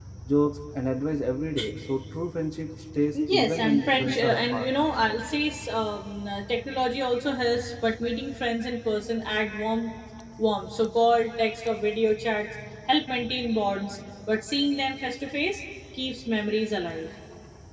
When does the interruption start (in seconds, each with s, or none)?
3.1 s